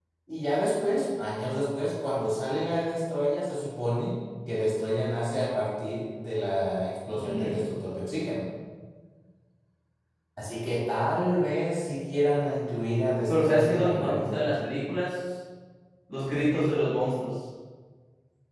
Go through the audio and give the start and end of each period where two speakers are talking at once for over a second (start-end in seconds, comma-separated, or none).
13.3-14.6